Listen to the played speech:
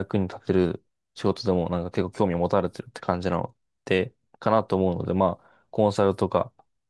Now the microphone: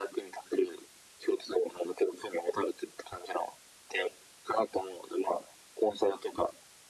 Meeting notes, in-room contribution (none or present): none